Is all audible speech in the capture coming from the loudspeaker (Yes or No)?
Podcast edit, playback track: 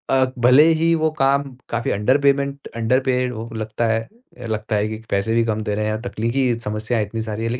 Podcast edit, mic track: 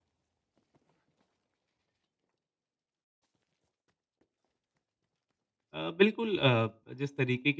No